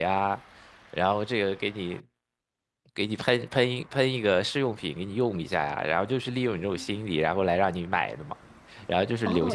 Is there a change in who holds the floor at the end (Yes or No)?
Yes